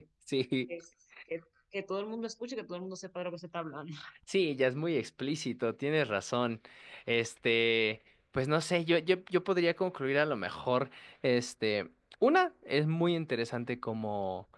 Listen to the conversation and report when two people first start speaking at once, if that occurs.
none

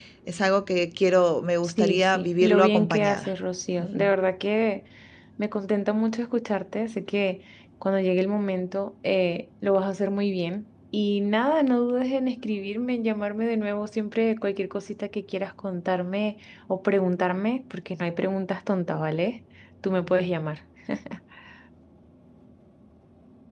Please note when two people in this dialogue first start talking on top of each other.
2 s

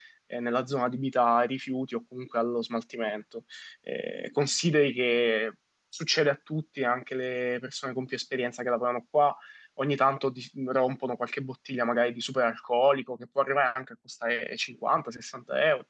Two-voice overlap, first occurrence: none

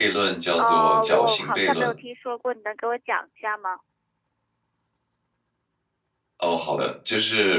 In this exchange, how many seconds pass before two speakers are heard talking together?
1 s

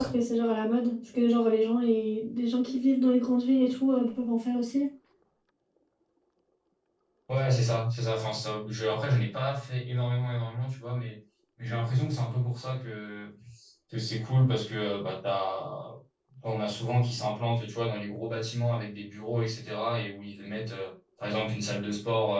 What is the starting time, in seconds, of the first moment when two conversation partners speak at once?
none

